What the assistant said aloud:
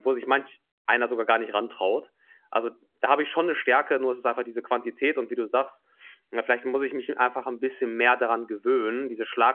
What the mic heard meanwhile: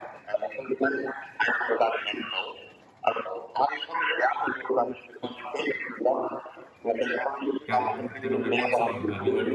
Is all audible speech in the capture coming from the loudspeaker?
No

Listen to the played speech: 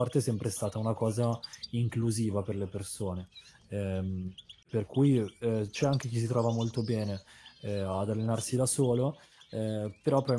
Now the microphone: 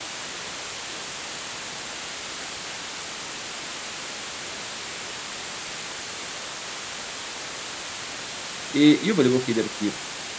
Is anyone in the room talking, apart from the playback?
Yes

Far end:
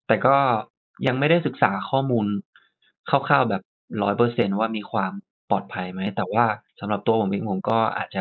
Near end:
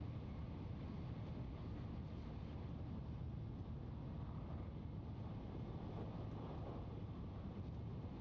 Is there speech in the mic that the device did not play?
No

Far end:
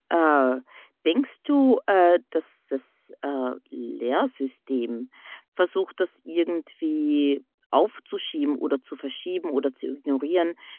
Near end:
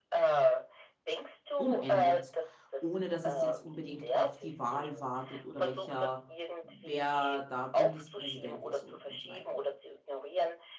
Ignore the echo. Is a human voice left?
Yes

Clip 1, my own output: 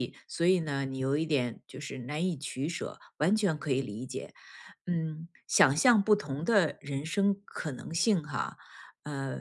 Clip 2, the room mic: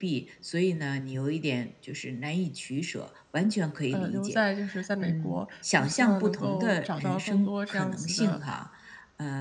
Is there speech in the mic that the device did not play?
Yes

